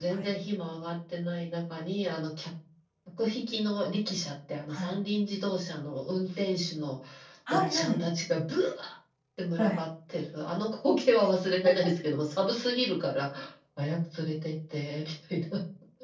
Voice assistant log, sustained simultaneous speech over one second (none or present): none